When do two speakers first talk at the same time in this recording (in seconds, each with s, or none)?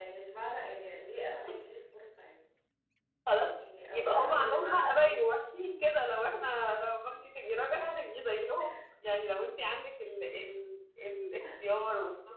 3.9 s